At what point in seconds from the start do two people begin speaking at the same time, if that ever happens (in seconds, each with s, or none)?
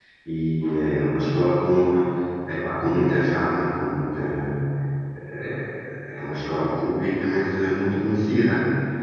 none